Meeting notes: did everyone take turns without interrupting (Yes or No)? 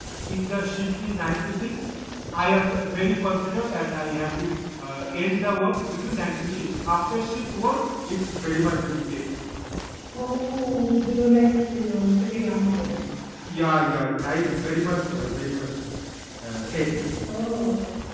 Yes